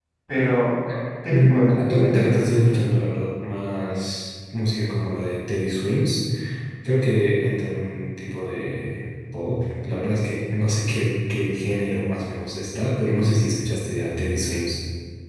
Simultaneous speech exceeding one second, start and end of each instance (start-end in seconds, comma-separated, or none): 1.3-2.8